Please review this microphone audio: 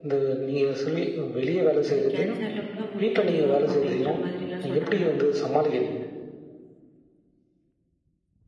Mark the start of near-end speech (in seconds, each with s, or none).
1.9 s